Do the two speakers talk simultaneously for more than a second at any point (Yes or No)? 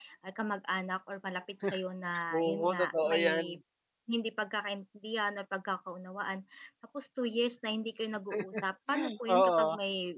Yes